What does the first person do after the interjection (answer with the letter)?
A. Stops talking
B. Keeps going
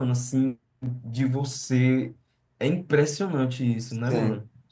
A